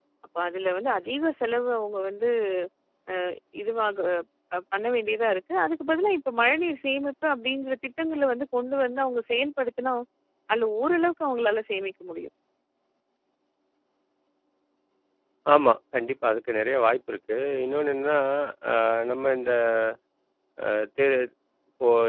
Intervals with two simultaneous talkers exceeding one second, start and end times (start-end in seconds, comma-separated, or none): none